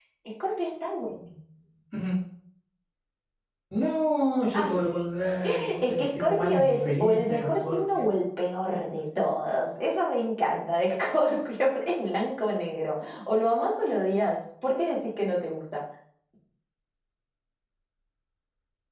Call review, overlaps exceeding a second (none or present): present